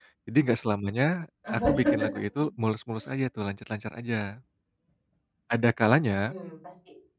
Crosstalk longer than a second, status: none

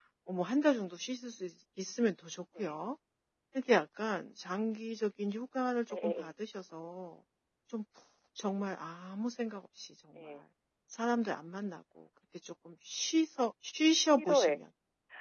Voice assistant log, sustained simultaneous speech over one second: none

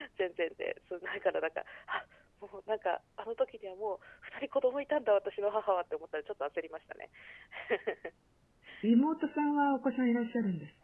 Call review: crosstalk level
none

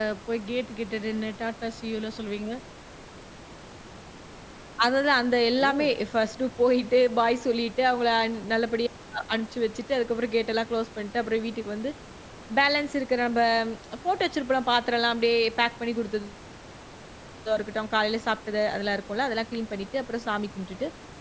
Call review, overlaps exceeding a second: none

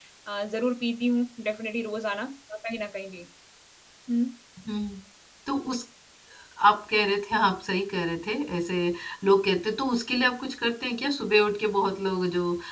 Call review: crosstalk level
none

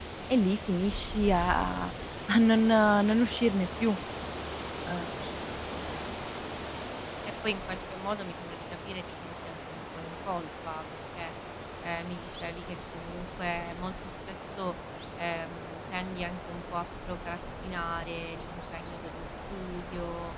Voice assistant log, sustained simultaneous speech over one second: none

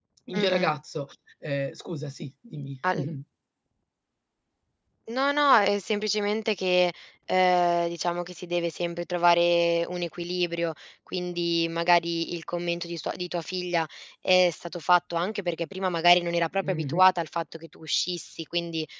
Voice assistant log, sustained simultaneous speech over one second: none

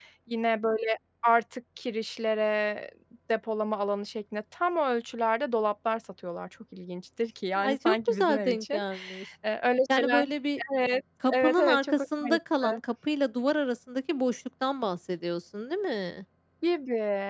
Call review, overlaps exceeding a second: present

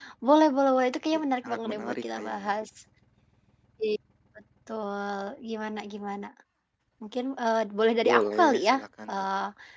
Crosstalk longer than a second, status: present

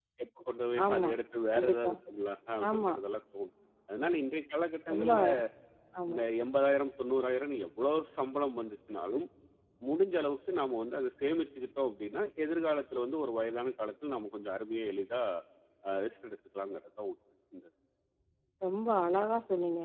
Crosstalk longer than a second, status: none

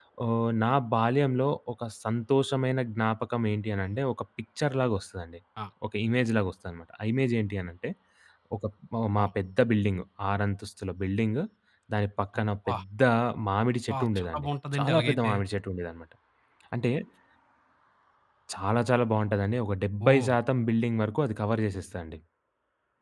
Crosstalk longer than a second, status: present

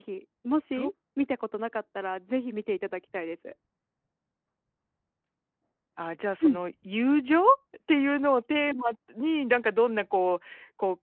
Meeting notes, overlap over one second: none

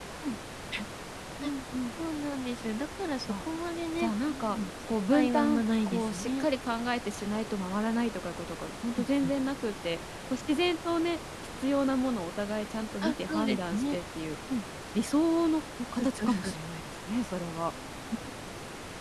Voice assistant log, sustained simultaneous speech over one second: present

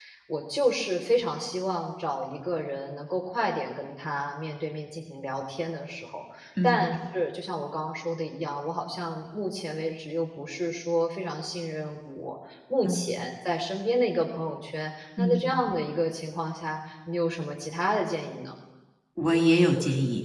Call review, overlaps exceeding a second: none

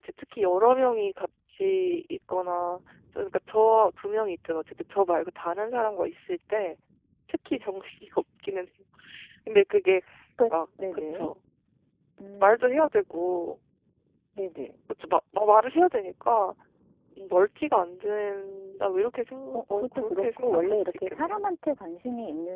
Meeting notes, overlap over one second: present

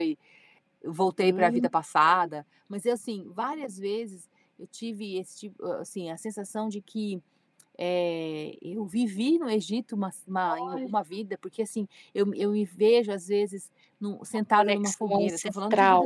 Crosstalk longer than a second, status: present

